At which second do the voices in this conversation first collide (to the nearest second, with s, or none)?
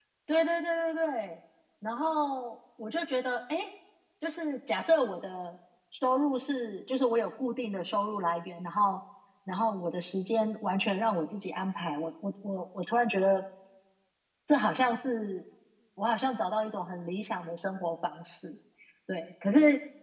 none